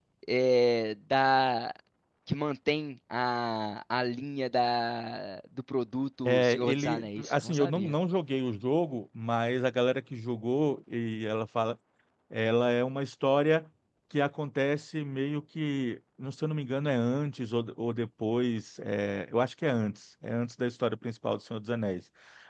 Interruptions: present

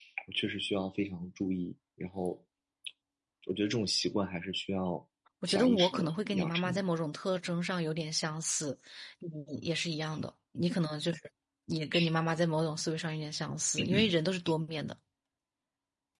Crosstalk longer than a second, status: present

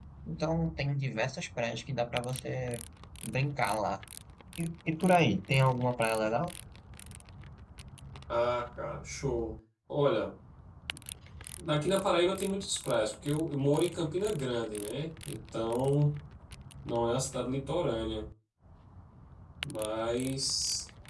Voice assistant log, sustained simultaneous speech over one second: none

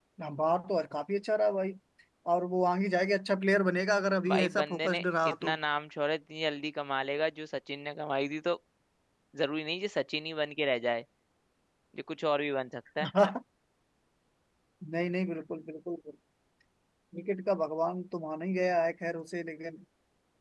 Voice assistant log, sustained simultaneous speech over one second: present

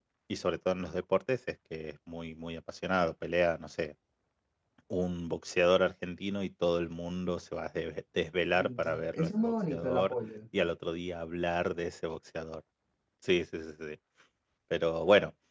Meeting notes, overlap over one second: present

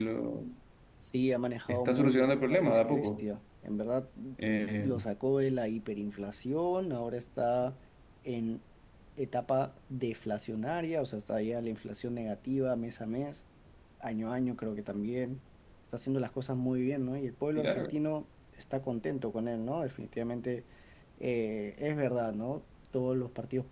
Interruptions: present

